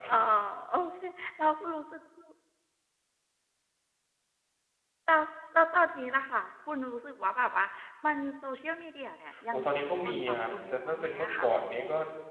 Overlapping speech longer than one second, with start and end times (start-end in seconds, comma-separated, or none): 9.5-11.5